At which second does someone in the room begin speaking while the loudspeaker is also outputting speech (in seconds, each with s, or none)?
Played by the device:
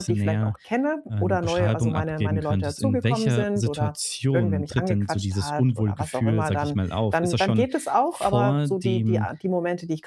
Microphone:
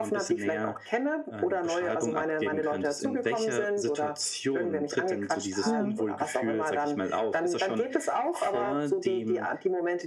5.6 s